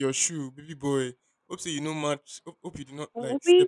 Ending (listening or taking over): taking over